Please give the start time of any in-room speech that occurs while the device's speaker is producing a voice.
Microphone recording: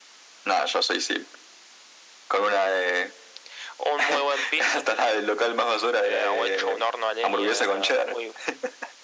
none

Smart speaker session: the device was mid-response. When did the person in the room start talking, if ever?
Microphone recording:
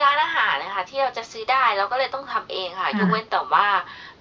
2.9 s

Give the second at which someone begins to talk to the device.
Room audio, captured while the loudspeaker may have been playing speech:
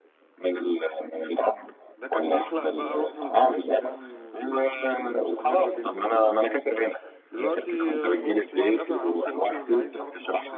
2.0 s

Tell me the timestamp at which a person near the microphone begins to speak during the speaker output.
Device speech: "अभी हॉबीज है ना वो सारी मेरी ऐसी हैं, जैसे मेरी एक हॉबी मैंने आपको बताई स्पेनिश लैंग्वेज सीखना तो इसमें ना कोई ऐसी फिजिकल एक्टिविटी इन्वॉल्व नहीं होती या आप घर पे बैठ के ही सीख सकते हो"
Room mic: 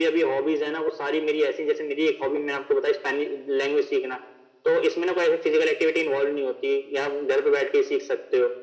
none

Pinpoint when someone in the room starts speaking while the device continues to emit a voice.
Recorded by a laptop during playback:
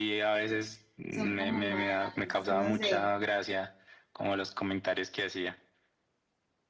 1.1 s

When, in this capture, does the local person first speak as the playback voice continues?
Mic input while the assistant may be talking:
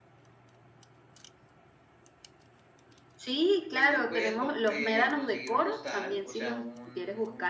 3.7 s

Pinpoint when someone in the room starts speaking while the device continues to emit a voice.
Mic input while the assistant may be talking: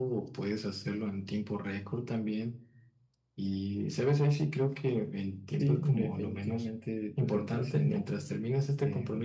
5.6 s

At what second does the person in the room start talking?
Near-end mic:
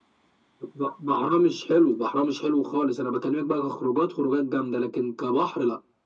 none

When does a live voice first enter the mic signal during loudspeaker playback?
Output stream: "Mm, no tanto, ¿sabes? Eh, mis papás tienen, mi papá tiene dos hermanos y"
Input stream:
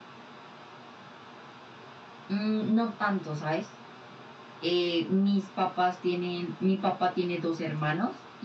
none

